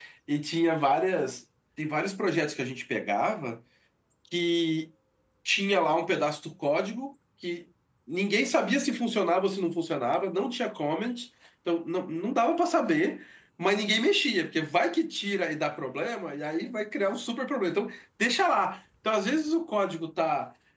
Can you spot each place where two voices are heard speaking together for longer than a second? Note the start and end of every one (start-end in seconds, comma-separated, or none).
none